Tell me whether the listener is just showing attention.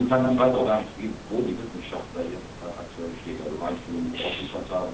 Yes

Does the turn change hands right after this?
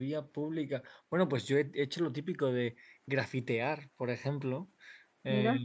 No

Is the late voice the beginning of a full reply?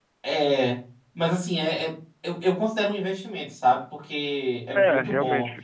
No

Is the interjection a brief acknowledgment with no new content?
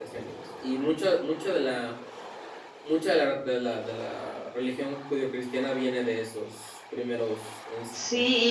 No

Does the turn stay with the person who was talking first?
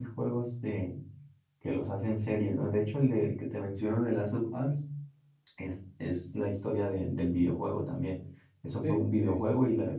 Yes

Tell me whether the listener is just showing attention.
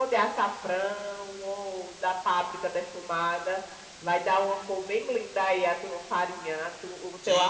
No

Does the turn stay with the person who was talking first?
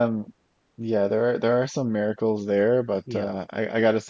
Yes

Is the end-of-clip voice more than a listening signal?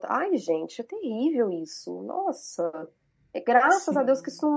No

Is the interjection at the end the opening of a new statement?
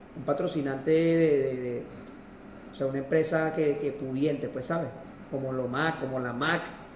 No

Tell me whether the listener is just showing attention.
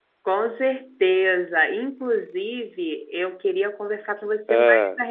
Yes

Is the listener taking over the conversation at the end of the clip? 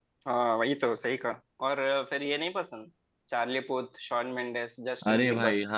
Yes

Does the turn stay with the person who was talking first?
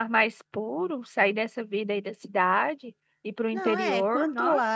No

